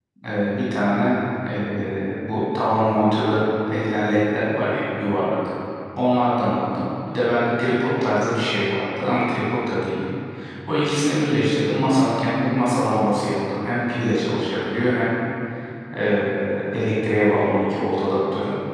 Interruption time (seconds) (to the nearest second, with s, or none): none